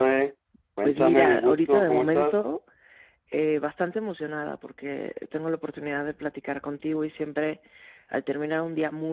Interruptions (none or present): present